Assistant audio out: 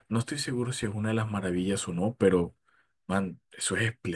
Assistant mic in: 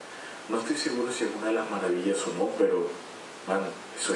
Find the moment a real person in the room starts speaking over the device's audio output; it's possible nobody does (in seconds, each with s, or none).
none